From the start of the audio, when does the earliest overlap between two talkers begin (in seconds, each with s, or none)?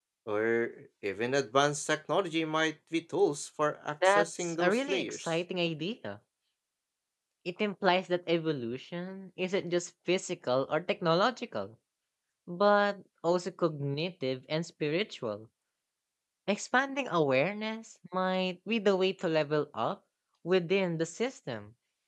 4.0 s